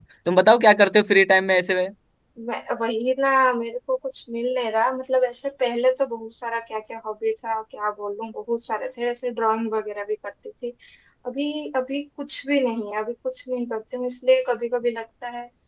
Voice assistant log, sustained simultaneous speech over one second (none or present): none